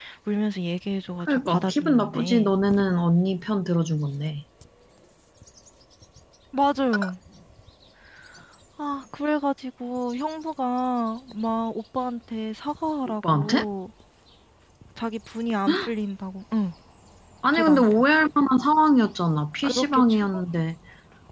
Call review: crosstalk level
present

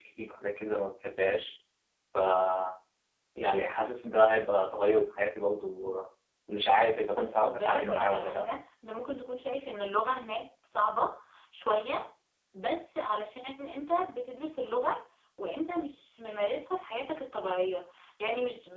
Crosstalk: present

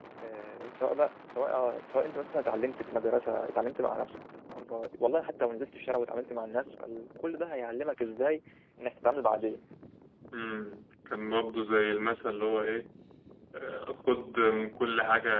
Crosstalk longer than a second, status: none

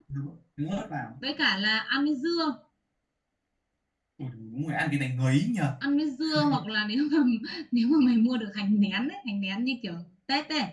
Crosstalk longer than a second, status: none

